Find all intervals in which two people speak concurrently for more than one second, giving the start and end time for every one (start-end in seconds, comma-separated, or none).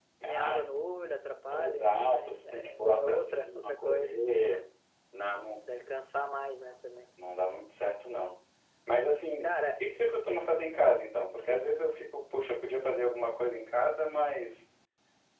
1.5-4.3